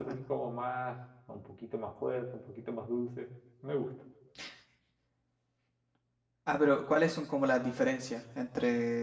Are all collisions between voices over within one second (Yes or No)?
Yes